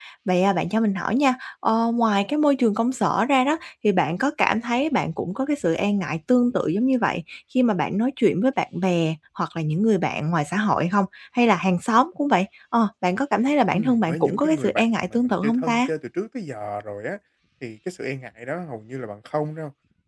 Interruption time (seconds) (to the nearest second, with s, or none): 14 s